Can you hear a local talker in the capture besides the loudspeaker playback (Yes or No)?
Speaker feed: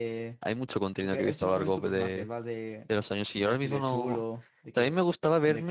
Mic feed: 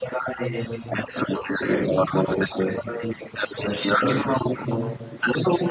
No